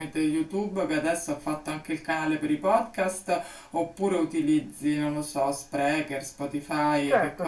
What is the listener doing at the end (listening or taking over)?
taking over